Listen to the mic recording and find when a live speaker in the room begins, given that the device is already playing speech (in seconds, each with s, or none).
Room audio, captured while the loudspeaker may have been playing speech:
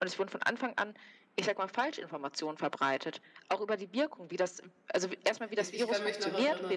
5.5 s